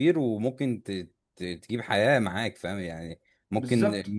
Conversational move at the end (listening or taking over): listening